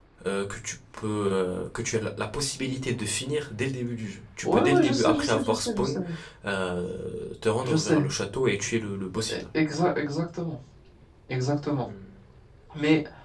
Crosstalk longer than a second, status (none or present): present